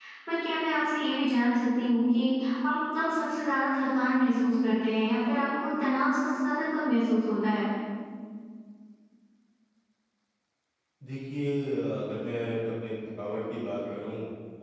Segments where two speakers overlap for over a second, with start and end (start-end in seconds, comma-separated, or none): none